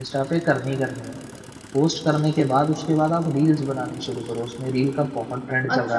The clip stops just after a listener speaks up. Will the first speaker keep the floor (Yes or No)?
No